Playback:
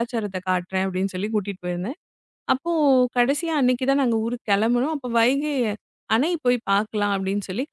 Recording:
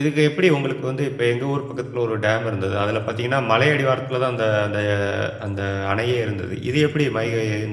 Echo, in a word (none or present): none